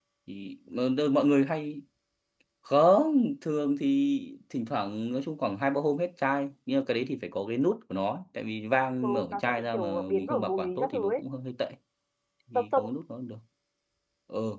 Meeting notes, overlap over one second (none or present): present